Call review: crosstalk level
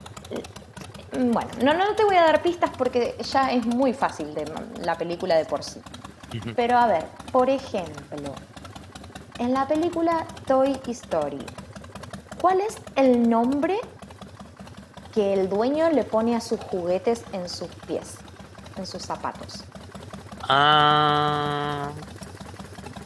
none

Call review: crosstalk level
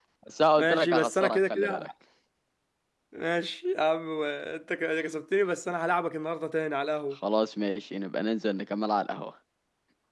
present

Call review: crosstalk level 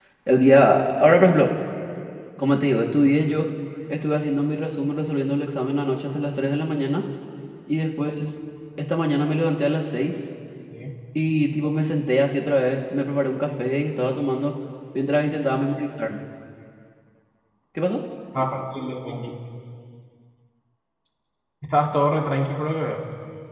none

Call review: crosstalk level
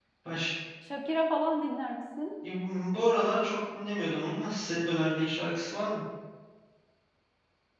none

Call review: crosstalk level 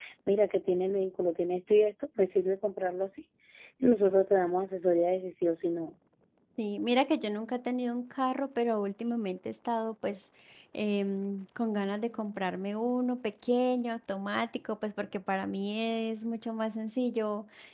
none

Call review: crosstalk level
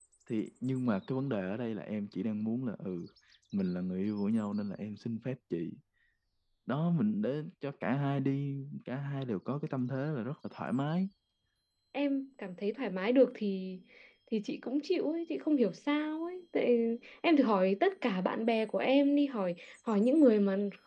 none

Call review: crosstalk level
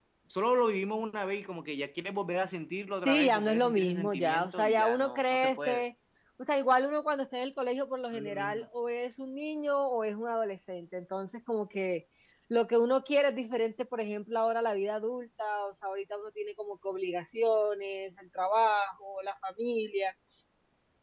present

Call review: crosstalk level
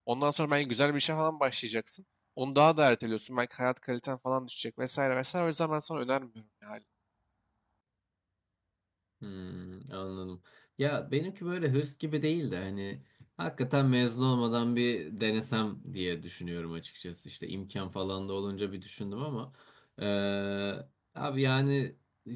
none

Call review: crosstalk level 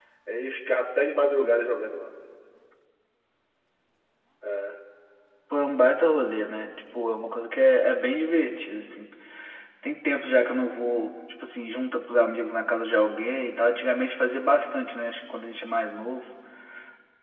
none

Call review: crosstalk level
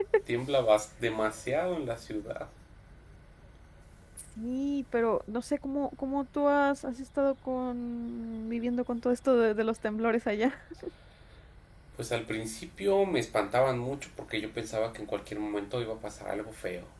none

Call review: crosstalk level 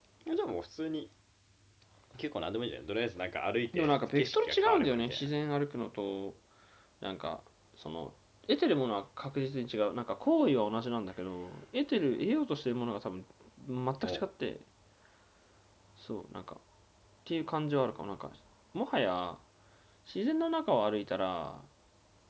present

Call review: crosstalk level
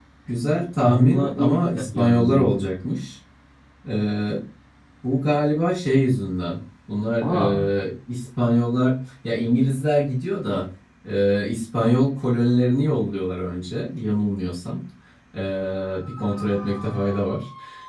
present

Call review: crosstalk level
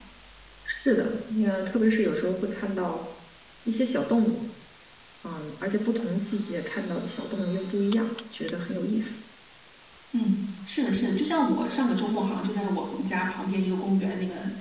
none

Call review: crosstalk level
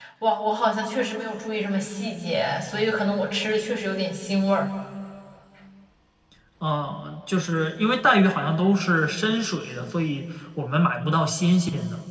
none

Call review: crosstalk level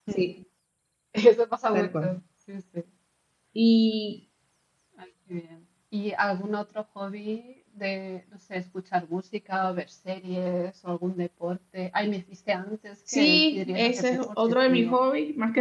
present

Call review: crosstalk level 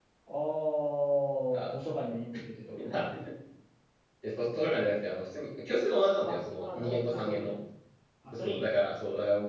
present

